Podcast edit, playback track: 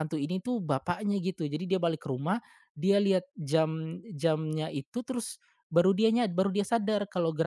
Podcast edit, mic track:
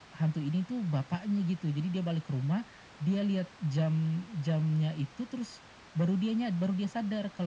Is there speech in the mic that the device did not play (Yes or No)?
No